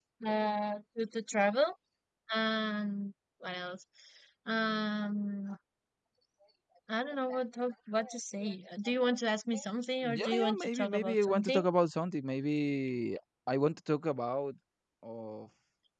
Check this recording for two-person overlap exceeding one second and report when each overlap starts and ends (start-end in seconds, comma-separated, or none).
10.0-11.6